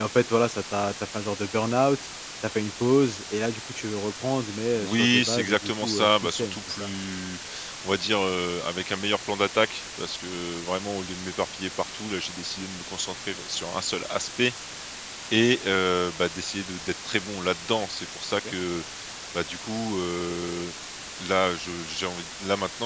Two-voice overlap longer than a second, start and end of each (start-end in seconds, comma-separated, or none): 4.8-6.9